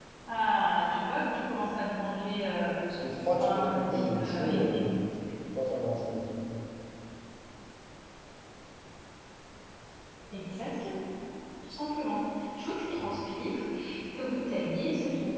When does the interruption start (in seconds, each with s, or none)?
3.4 s